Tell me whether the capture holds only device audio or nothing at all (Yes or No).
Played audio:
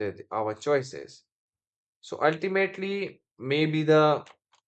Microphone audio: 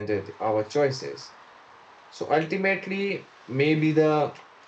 Yes